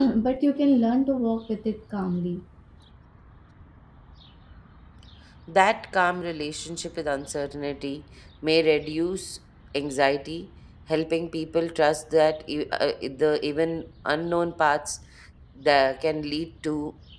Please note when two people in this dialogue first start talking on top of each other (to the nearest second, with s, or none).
none